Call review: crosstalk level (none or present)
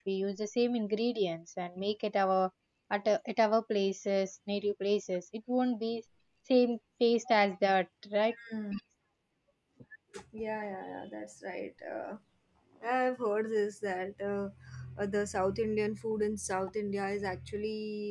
none